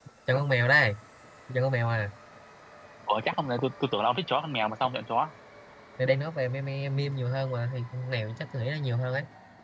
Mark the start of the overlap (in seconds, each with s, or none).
none